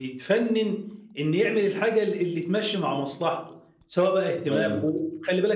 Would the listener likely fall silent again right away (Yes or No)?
Yes